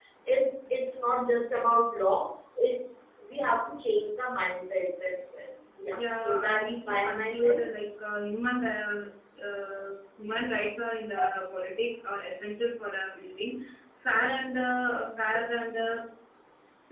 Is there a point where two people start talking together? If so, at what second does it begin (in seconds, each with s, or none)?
6.2 s